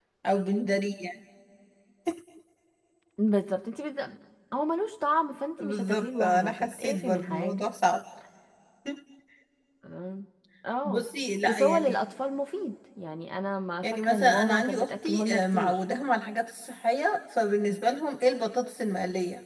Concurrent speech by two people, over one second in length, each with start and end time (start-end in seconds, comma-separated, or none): 5.6-7.6, 13.8-15.8